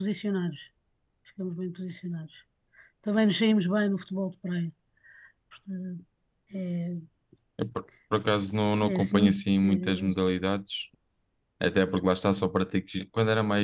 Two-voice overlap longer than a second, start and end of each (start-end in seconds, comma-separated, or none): 8.8-10.0